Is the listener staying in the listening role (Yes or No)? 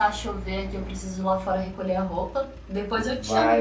No